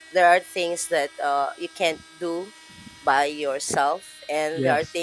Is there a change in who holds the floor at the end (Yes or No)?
No